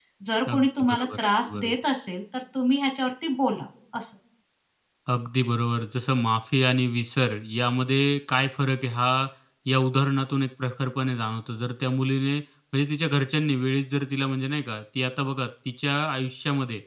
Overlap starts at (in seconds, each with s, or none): 0.5 s